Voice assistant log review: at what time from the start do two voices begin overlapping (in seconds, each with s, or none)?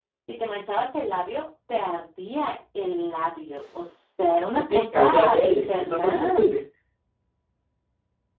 4.7 s